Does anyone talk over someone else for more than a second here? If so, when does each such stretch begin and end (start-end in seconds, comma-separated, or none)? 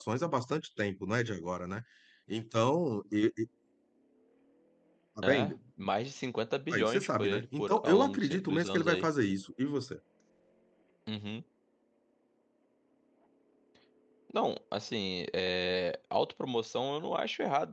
6.7-9.1